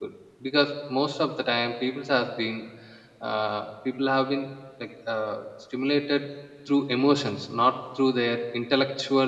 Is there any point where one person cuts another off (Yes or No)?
No